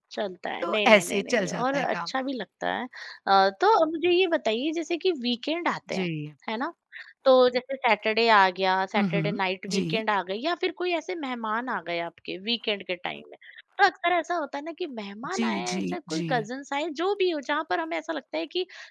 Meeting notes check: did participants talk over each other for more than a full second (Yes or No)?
Yes